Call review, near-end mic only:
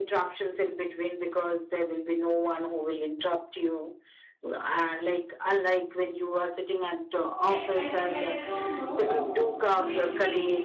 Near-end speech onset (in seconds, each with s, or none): 7.4 s